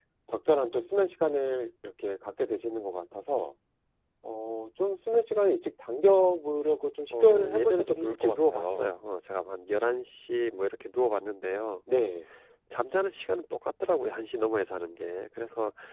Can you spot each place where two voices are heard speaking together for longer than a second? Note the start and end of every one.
7.1-8.9

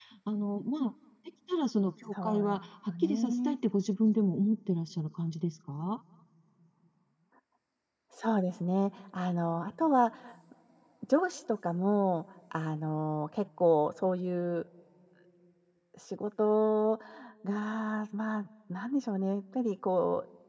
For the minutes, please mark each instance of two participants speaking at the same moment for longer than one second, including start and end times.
2.2-3.5

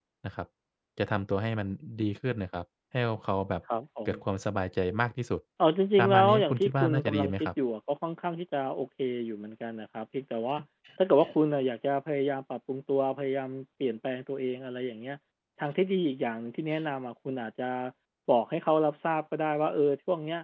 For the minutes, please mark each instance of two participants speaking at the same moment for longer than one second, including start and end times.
6.0-7.5

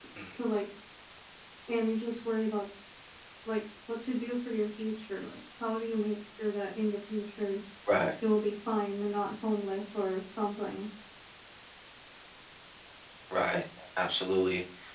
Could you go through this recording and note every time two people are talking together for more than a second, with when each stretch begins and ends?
none

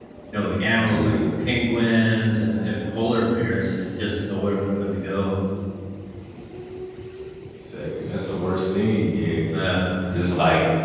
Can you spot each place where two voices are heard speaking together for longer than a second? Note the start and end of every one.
none

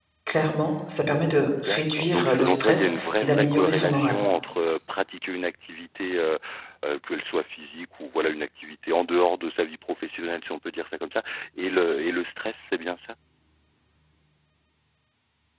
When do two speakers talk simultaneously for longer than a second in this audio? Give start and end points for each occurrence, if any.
1.6-4.2

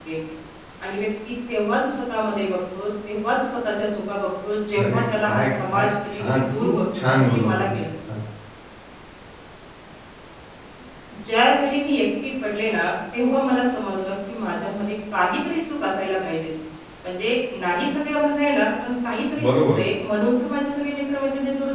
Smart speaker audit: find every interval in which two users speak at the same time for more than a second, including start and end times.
4.7-7.8

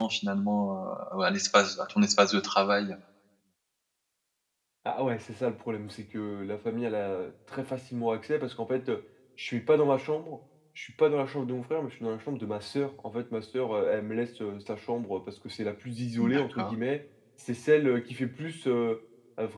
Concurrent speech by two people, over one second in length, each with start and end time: none

